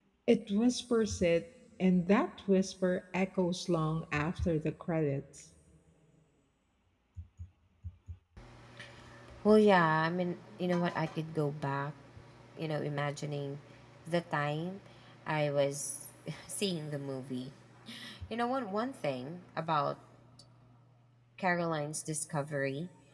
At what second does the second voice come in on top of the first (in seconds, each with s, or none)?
none